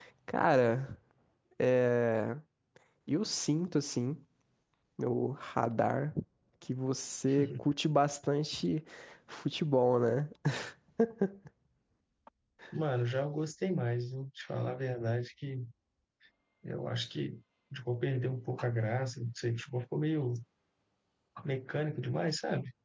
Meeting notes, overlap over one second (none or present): none